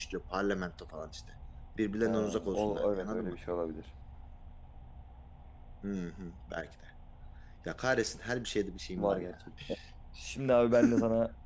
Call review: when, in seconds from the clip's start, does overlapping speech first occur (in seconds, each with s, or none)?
2.0 s